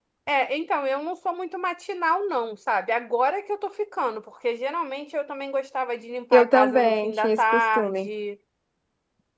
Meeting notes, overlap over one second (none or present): present